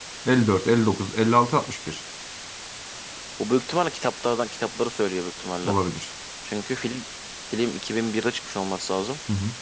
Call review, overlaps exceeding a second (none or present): none